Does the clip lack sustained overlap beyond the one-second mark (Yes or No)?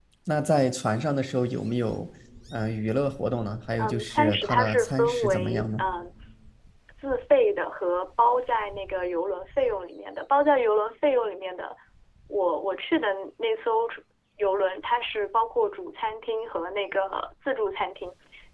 No